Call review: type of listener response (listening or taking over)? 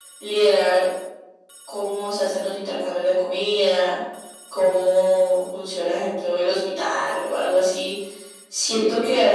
listening